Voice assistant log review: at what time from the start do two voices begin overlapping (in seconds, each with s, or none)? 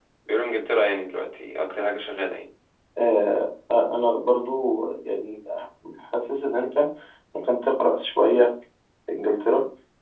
none